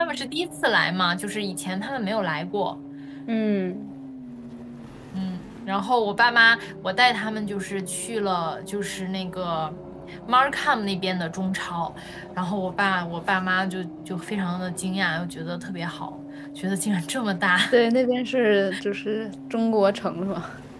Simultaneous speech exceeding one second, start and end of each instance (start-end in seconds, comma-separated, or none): none